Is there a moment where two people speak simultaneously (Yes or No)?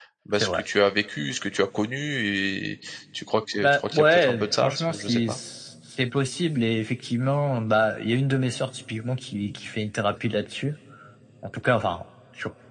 Yes